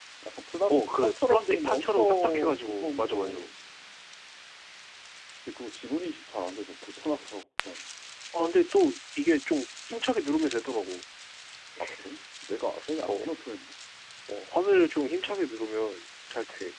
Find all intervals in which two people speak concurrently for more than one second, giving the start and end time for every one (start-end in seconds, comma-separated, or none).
0.7-3.4